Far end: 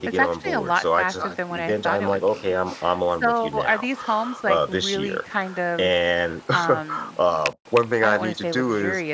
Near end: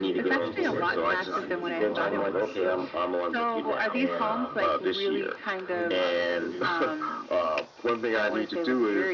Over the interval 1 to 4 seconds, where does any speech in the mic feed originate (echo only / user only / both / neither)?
both